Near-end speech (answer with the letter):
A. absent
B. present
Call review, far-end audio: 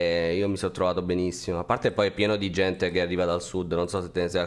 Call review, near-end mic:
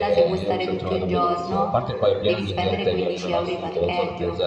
B